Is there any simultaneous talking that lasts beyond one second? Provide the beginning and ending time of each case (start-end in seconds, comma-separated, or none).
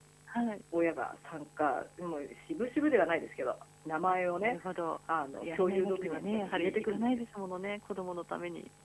5.4-7.2